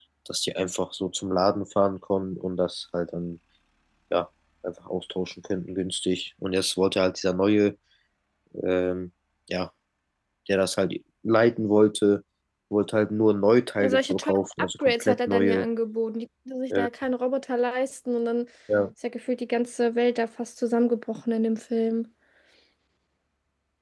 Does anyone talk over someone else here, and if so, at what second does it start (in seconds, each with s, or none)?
13.8 s